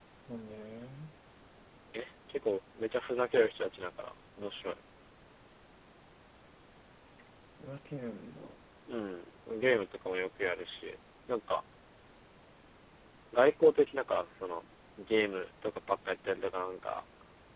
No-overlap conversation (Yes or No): Yes